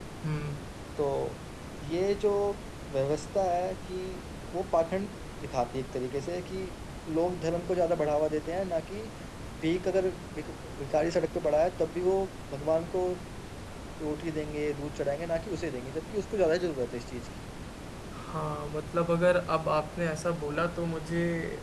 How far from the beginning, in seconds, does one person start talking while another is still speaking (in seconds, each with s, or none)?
none